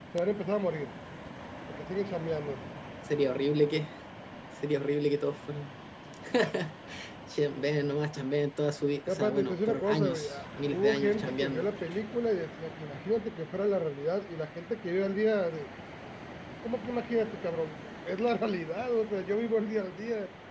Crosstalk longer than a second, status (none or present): present